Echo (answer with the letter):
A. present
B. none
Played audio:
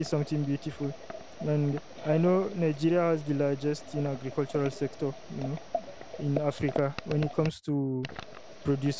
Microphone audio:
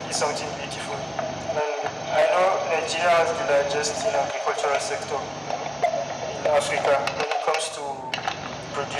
A